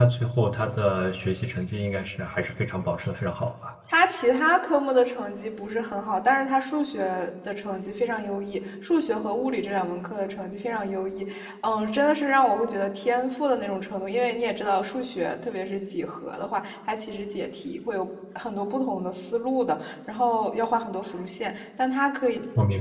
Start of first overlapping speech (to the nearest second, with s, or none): none